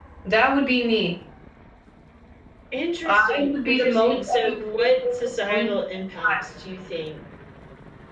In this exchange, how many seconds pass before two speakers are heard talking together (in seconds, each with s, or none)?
3.0 s